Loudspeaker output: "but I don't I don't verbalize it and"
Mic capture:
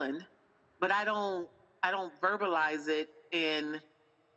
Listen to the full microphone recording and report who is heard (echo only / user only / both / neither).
echo only